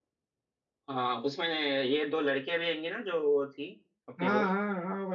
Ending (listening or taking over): taking over